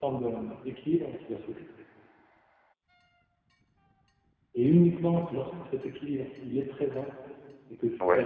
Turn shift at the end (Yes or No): No